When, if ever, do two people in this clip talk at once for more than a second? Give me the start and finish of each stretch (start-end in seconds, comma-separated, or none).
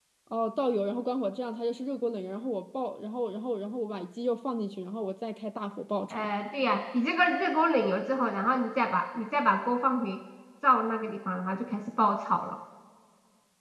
none